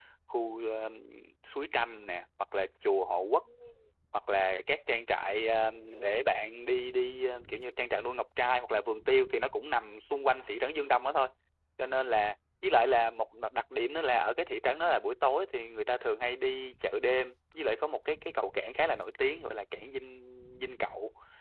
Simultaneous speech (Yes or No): No